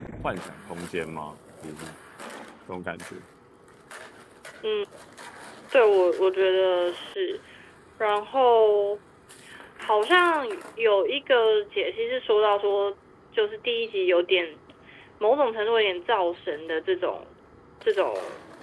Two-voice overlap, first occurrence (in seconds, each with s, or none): none